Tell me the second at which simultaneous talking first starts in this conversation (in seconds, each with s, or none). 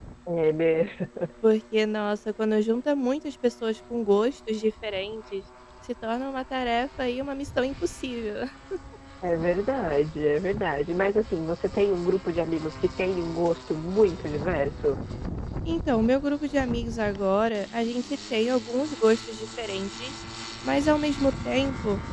none